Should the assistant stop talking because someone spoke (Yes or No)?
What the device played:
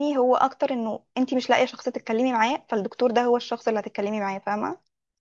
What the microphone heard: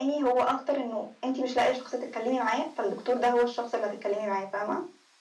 No